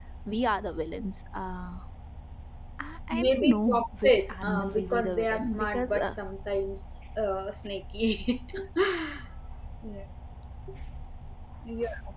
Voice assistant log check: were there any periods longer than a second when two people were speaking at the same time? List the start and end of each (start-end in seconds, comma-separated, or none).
3.1-6.2